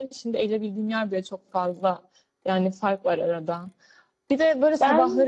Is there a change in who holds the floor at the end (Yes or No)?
No